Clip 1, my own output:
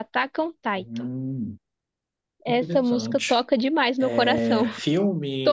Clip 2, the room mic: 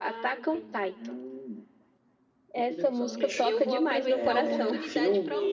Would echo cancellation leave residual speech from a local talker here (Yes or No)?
Yes